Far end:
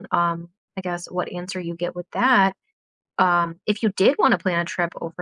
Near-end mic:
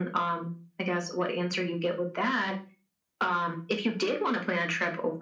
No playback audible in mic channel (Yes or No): No